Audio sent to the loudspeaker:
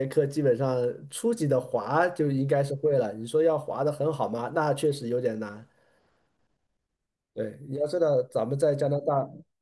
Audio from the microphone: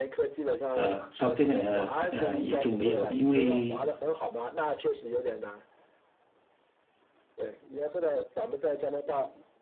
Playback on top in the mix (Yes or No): No